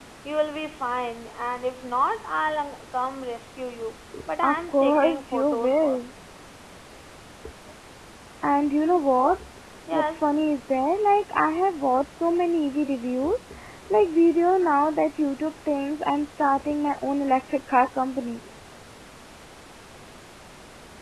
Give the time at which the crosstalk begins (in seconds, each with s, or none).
4.4 s